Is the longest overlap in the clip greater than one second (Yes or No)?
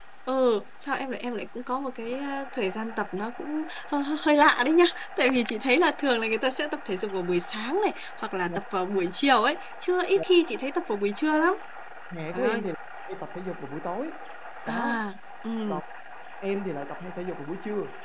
No